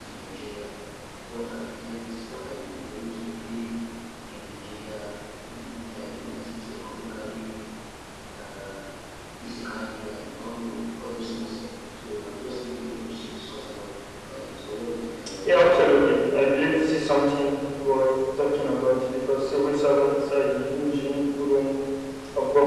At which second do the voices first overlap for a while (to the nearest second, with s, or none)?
none